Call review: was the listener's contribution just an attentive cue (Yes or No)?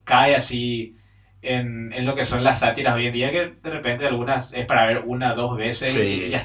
Yes